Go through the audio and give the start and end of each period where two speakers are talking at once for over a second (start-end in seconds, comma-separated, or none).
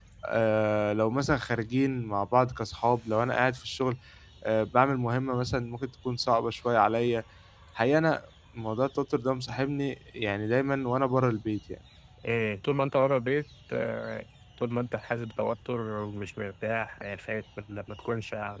none